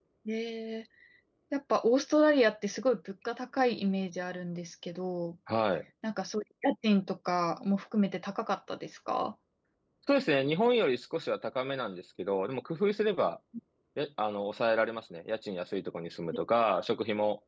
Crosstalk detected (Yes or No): No